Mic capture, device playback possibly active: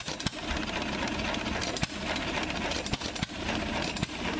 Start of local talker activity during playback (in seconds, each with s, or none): none